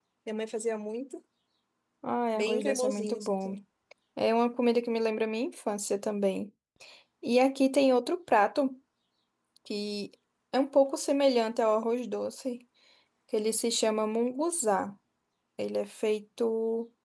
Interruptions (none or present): present